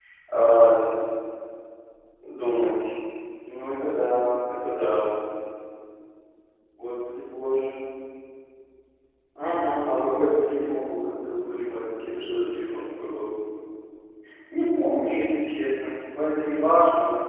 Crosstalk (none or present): none